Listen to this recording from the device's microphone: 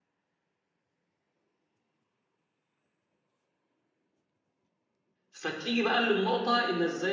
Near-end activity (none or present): present